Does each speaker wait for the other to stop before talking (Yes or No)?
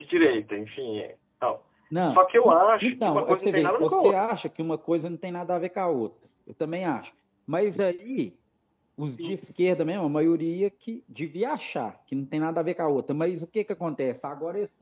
No